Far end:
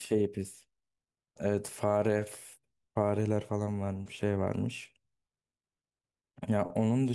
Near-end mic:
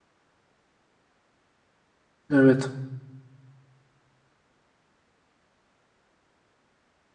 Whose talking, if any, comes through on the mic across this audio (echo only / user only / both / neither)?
user only